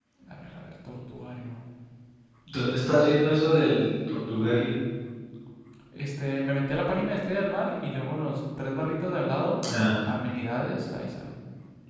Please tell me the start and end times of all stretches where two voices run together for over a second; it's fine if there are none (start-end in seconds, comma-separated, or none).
none